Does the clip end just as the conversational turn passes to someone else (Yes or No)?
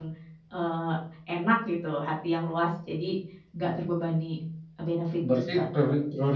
Yes